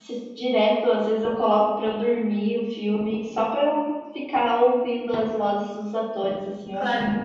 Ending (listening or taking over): taking over